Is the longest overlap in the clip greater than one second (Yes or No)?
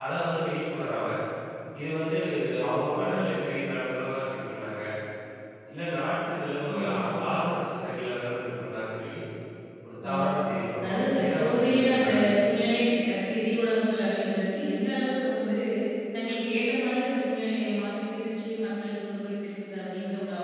Yes